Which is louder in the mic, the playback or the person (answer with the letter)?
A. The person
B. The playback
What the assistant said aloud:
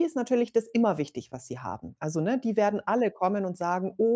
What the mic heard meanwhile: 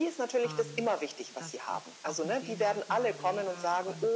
B